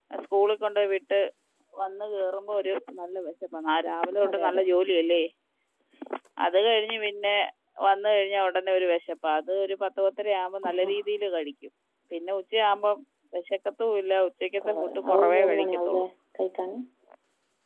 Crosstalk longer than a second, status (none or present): present